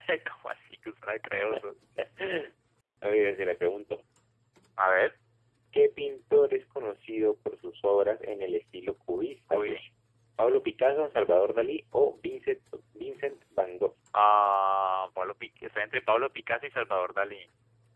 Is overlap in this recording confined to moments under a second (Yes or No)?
Yes